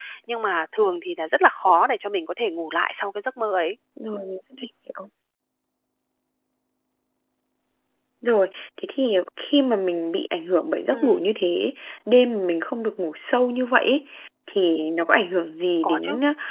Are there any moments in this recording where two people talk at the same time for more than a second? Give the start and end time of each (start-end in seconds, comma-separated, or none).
none